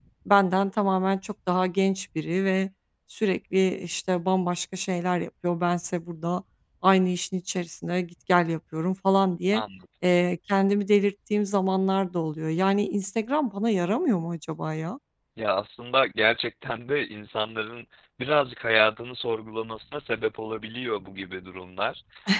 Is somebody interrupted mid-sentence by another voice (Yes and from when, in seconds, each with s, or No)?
No